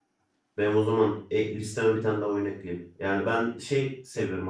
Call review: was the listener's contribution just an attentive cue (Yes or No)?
Yes